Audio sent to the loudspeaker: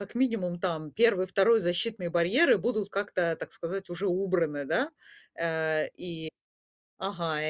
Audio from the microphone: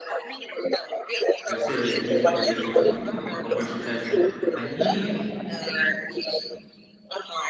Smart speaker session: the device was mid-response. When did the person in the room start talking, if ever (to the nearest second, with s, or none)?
2 s